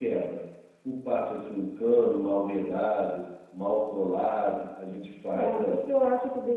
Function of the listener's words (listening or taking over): taking over